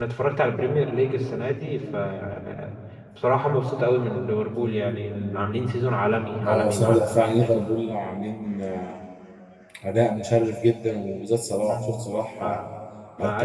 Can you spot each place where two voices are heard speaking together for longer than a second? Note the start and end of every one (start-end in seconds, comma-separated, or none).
6.5-7.8